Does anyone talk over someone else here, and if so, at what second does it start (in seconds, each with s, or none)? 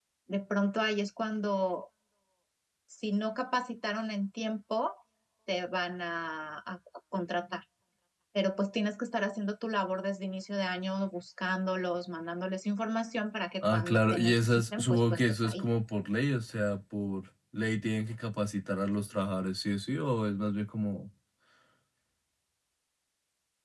13.6 s